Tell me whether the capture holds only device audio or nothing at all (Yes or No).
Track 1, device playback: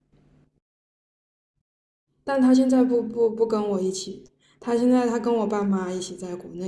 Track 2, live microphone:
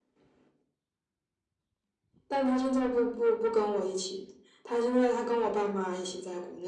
Yes